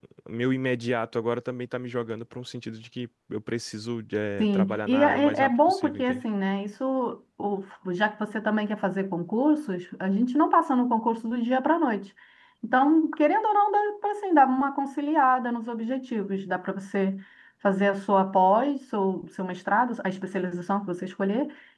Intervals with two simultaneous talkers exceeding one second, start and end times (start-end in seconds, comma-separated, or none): 4.4-6.2